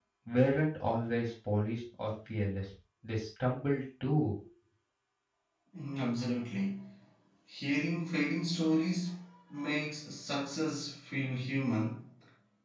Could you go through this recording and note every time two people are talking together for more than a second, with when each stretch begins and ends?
none

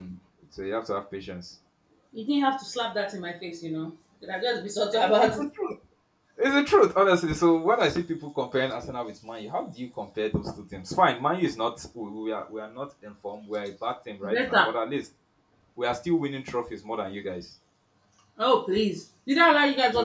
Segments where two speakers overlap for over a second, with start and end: none

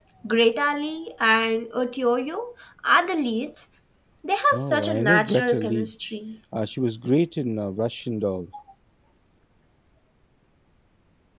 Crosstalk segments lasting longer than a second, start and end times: 4.5-5.9

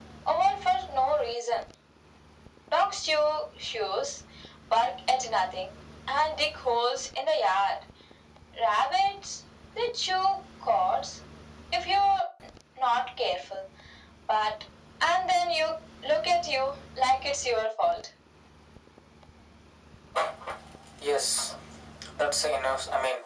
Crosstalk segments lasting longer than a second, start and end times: none

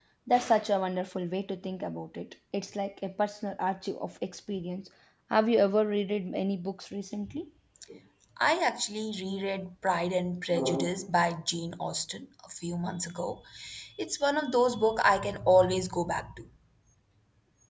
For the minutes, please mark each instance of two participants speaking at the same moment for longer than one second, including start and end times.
none

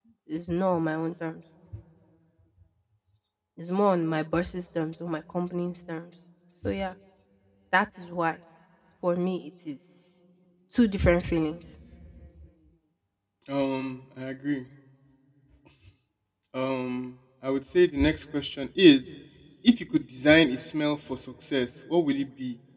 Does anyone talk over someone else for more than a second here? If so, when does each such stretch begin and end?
none

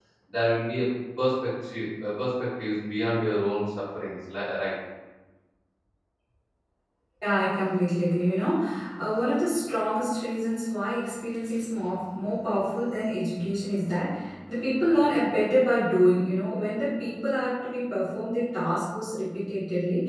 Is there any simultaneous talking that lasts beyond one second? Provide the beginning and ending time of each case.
none

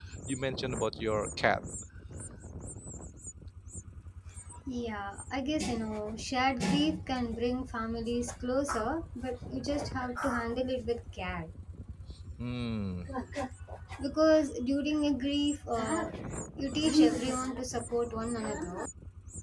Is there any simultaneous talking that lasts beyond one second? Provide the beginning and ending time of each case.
none

